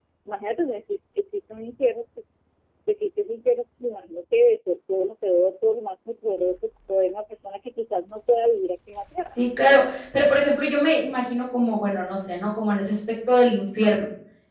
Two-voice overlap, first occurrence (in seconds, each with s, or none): none